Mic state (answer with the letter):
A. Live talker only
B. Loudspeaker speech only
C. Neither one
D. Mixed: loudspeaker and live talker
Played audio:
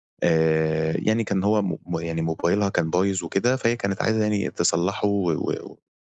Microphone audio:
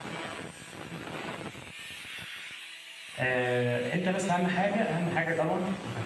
A